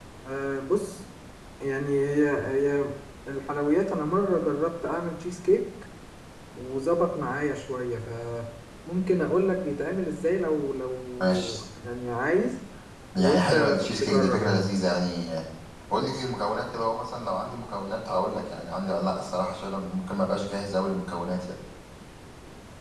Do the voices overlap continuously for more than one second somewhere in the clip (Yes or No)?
Yes